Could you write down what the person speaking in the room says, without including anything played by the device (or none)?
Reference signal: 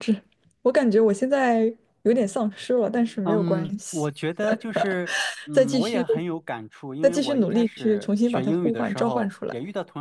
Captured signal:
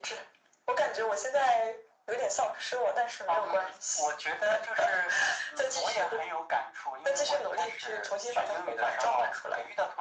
none